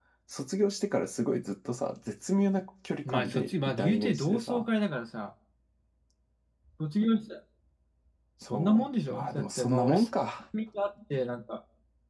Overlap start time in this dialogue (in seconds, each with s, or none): 3.0 s